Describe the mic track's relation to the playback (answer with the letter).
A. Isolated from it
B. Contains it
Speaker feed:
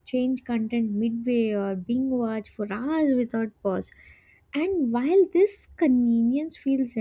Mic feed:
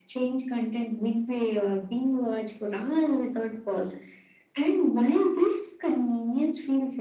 B